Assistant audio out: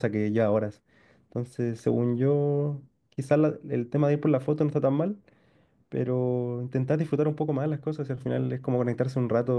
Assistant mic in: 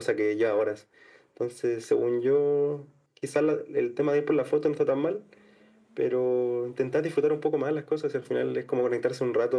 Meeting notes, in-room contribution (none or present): none